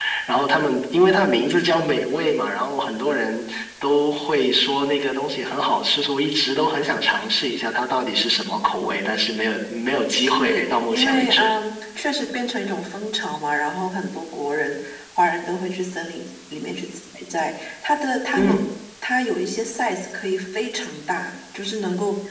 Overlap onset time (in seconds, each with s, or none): 10.2 s